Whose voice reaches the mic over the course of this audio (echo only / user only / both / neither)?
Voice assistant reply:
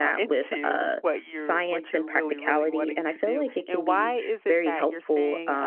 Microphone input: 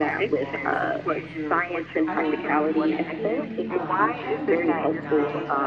both